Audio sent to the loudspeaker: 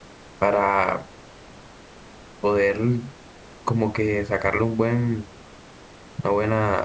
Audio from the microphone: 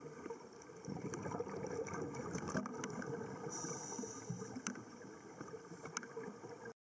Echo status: none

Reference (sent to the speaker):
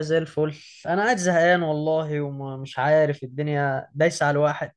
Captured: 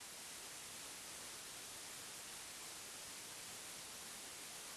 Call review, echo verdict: none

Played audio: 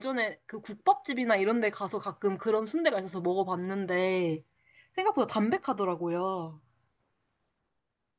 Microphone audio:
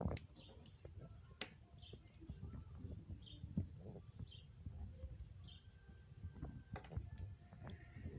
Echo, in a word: none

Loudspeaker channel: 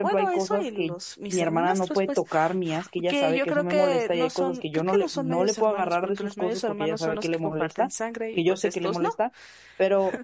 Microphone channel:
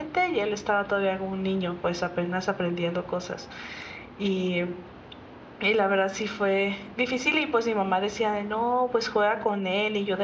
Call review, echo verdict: none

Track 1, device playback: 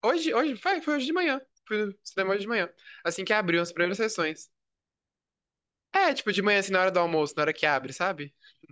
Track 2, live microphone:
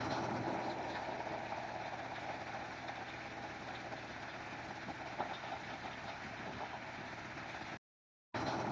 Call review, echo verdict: none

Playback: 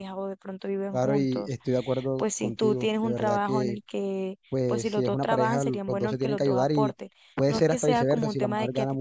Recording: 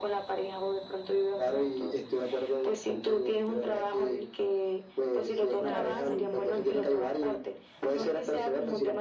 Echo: present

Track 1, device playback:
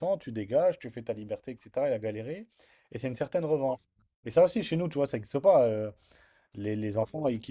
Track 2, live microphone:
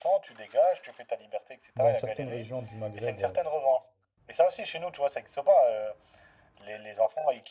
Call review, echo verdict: present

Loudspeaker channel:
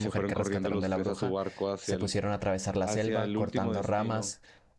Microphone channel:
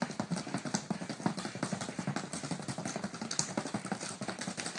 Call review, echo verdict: none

